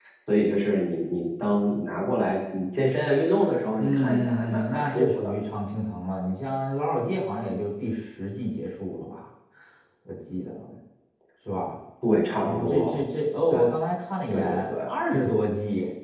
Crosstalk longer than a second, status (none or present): present